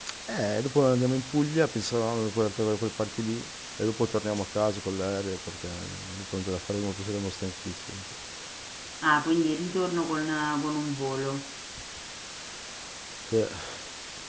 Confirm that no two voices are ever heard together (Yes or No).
Yes